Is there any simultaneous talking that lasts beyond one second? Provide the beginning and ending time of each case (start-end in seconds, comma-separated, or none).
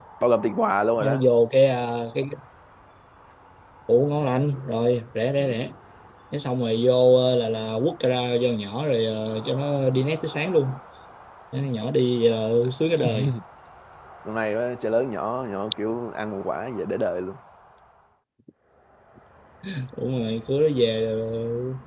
none